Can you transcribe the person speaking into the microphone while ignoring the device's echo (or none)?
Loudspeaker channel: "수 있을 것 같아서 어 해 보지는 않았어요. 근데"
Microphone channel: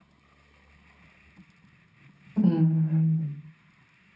음.